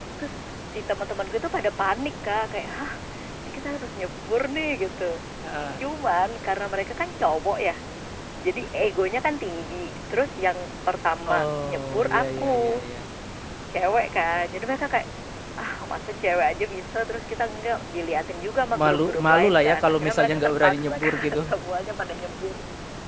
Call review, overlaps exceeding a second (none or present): present